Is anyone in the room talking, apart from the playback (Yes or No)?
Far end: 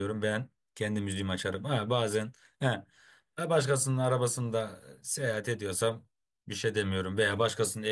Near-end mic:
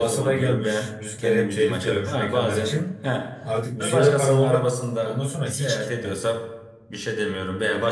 Yes